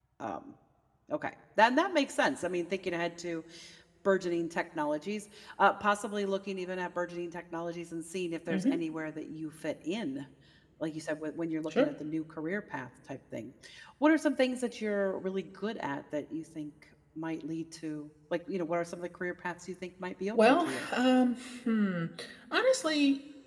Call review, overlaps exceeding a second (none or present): none